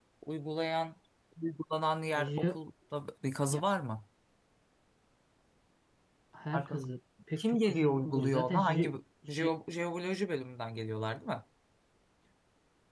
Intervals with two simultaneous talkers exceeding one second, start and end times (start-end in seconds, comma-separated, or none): 7.4-8.9